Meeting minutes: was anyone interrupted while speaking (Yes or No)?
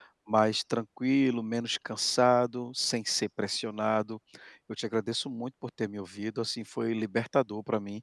No